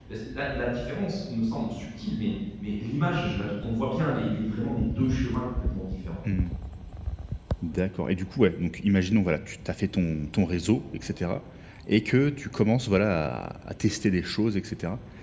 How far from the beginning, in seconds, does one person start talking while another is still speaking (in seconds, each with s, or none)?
none